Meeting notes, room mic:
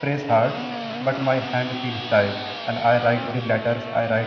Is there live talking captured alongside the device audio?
Yes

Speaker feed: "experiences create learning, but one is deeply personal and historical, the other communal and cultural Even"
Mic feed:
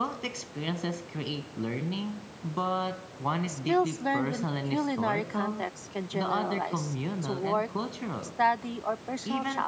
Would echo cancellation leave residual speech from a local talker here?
Yes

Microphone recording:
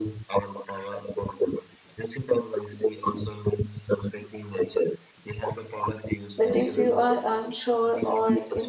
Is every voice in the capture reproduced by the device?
No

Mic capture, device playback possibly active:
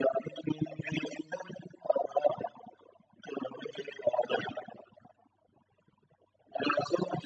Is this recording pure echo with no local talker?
Yes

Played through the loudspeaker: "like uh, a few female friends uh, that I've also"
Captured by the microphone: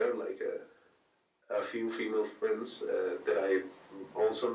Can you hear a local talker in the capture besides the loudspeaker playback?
No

